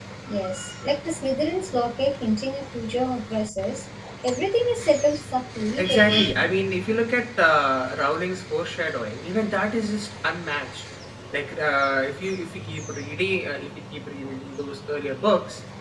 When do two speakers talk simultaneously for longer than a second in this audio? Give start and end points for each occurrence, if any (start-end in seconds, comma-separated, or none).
none